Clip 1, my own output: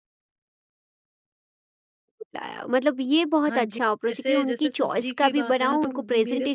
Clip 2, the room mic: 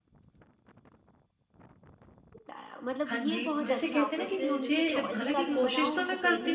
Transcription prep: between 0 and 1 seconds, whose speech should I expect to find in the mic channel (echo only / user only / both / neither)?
neither